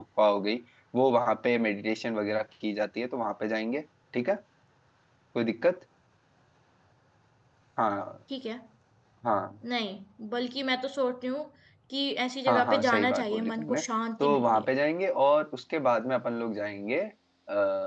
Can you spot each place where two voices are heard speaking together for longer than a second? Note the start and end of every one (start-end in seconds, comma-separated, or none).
12.5-13.8